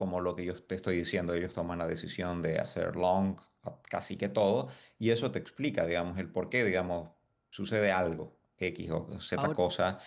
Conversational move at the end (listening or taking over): listening